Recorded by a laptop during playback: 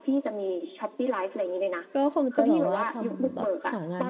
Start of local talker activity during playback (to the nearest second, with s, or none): 2 s